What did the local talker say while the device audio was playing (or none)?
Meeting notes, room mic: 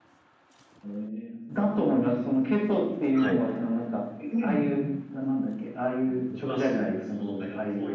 はい。